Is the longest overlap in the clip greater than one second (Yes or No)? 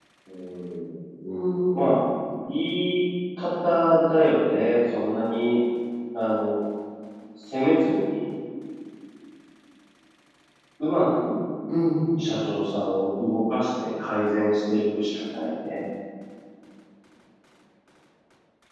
No